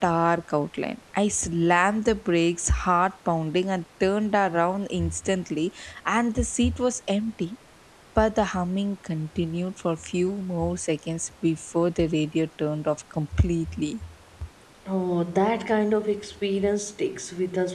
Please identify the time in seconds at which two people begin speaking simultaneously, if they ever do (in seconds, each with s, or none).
none